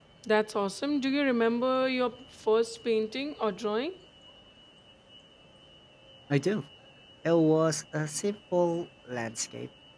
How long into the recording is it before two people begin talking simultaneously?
none

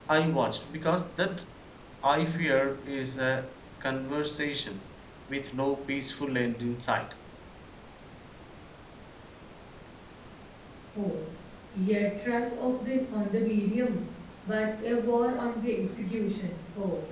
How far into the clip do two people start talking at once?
none

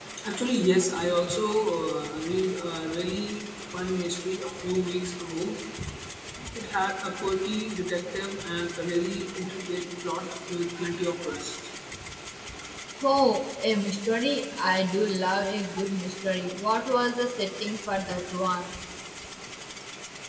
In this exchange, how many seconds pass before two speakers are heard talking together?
none

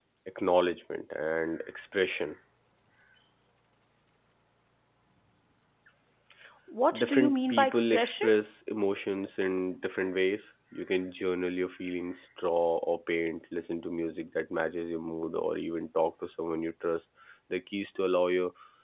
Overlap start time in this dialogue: 7.0 s

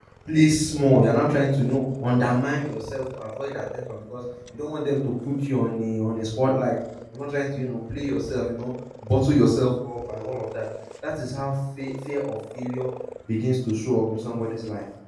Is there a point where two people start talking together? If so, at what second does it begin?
none

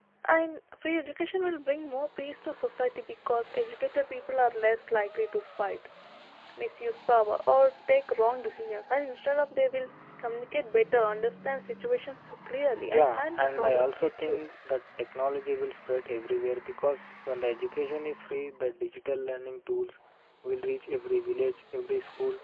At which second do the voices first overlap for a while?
12.9 s

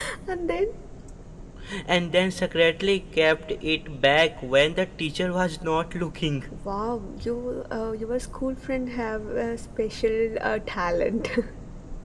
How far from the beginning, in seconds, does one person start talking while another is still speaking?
none

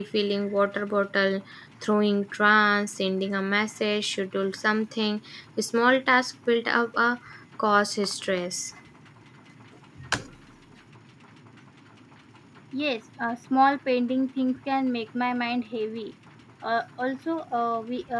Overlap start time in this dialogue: none

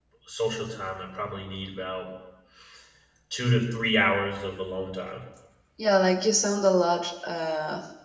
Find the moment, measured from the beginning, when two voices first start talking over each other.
none

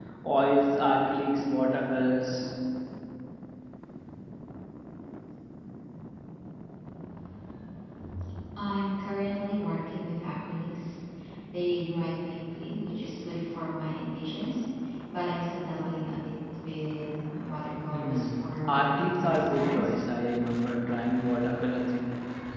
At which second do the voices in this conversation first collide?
17.9 s

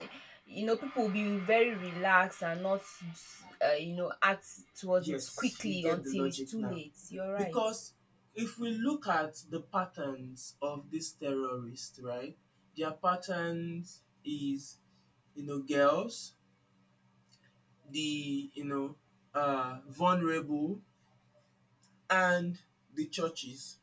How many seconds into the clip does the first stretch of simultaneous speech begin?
5.0 s

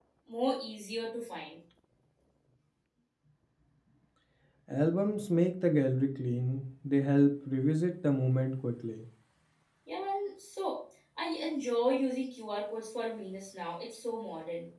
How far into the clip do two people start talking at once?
none

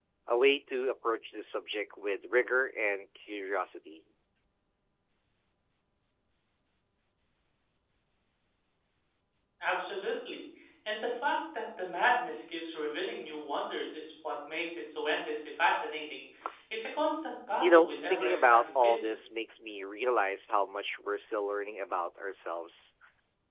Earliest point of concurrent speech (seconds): 17.6 s

